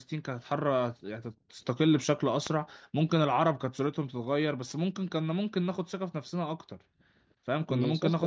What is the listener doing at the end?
listening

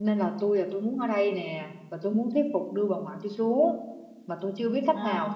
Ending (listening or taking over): listening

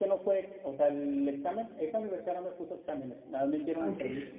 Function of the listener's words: listening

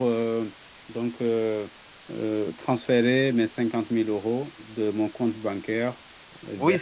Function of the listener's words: taking over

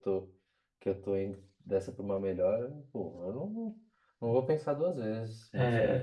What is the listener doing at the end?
taking over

